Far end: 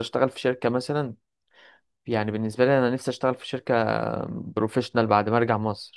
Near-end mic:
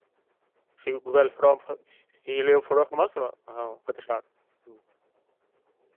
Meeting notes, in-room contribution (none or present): present